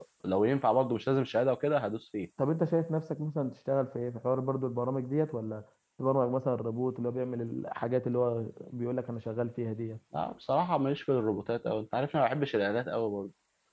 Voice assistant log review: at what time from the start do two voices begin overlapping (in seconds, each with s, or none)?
none